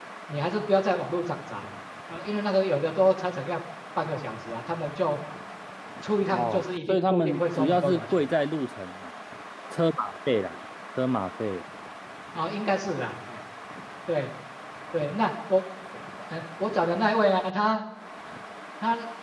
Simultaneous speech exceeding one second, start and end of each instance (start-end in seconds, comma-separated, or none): 6.3-8.2